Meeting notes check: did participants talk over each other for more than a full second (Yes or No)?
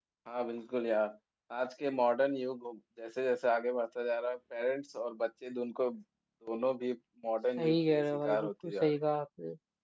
Yes